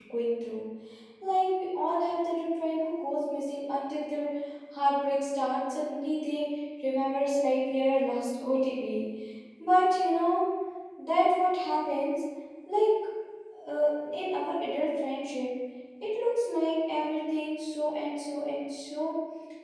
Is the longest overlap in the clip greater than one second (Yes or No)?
No